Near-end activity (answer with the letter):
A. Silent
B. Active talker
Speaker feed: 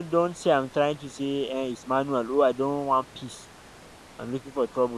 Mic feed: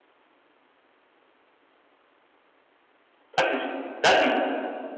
B